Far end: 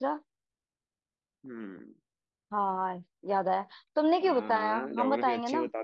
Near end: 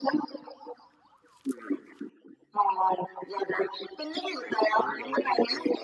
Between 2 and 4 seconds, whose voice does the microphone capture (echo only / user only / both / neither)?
echo only